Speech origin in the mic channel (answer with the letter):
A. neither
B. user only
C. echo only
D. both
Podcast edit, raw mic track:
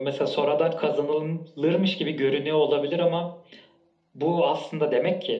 C